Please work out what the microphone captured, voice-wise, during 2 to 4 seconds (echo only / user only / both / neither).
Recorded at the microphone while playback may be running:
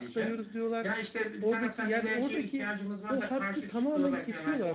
both